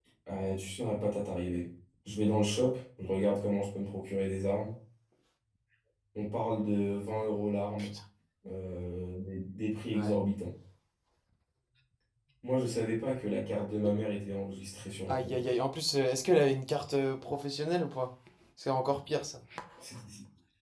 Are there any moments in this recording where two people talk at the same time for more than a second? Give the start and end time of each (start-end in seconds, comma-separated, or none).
none